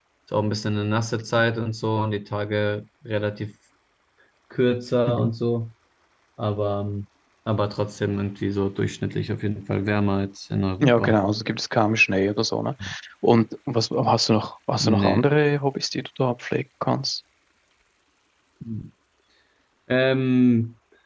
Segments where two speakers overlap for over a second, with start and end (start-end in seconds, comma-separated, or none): none